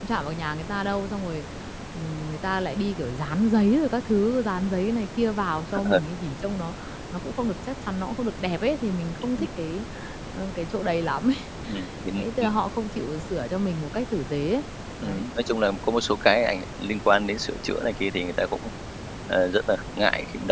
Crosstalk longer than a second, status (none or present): none